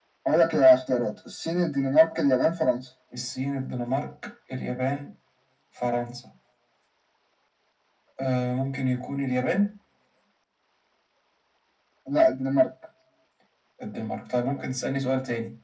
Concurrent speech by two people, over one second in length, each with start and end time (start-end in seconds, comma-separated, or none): none